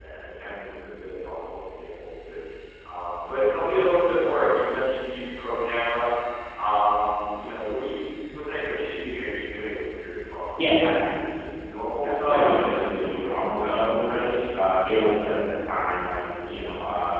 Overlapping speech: Yes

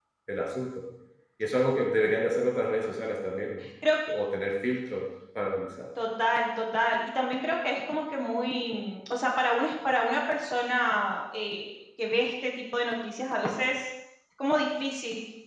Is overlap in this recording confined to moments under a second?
Yes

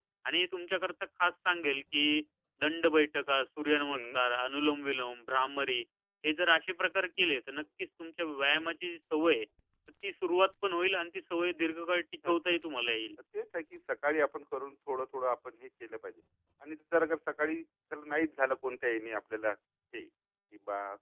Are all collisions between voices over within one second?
Yes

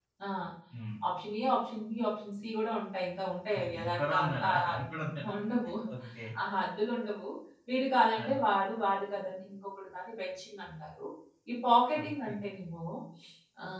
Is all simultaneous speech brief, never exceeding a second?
No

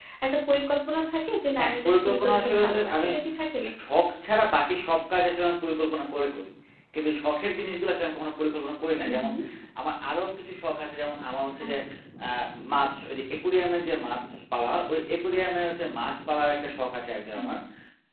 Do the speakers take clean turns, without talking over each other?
No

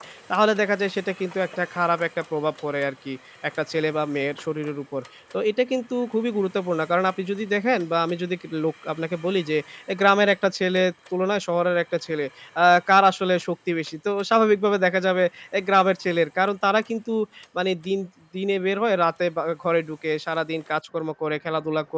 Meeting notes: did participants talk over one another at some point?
No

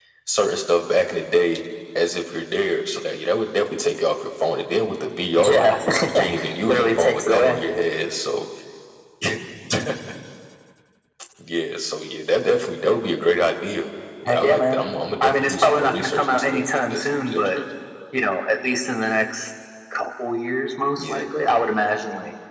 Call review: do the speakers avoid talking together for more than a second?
No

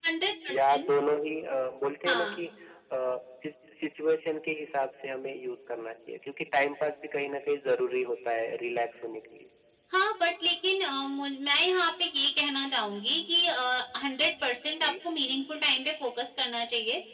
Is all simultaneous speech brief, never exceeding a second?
Yes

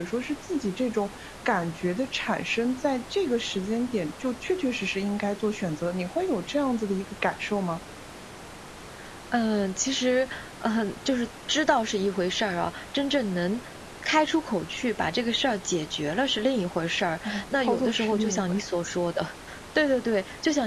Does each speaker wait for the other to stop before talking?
No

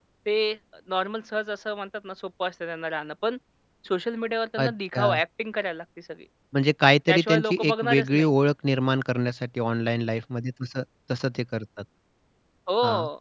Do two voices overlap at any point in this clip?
Yes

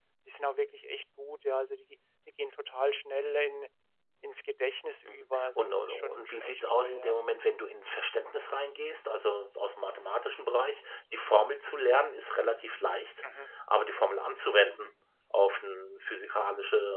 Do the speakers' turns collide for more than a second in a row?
Yes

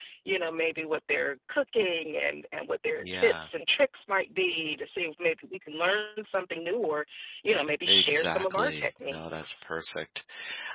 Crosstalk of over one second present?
Yes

